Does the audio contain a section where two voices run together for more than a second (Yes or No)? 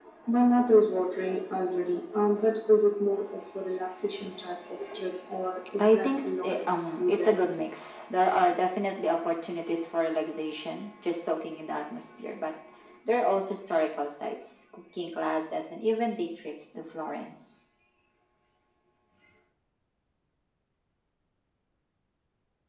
Yes